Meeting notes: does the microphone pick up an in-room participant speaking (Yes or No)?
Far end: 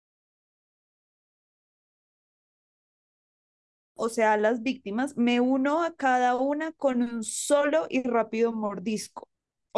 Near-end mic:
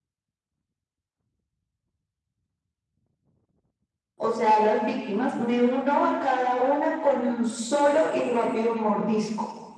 No